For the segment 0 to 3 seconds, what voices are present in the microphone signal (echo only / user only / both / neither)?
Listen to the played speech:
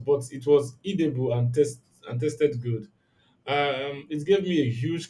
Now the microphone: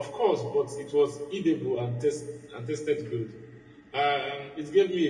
echo only